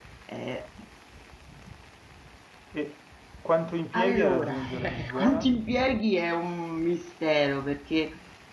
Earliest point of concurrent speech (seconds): 4 s

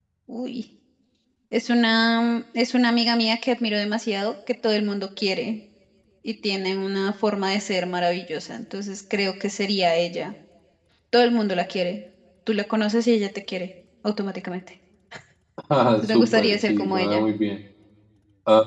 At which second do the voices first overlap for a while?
16 s

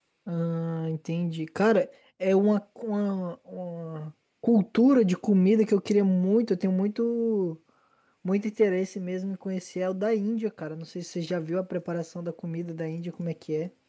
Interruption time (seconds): none

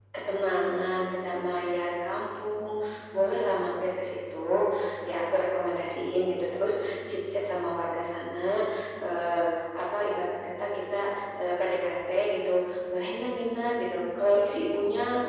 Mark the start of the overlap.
none

